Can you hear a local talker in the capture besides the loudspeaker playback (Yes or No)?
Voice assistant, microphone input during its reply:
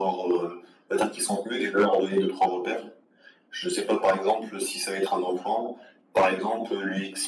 No